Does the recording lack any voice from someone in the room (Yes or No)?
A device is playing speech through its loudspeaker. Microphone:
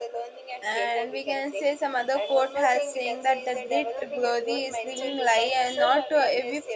No